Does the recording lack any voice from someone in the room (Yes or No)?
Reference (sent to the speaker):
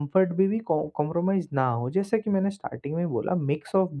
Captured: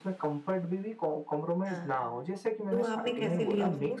No